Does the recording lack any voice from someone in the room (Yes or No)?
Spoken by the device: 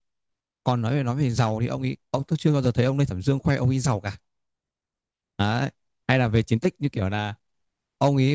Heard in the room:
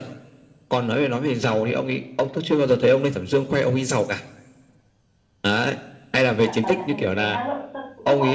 No